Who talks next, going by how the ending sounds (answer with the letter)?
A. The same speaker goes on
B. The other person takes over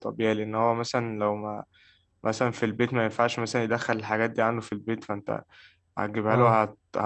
A